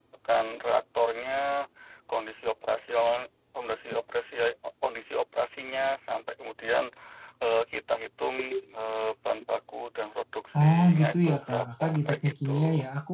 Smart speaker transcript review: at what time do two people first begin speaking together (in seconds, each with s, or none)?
10.5 s